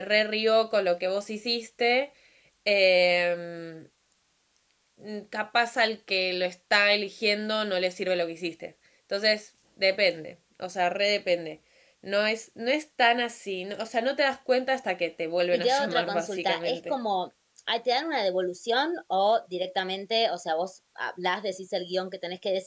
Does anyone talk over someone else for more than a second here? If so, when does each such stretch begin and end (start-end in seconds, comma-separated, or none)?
15.5-16.9